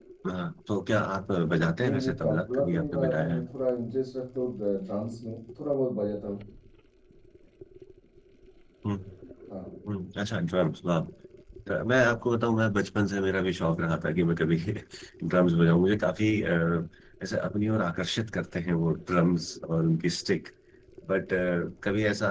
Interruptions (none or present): present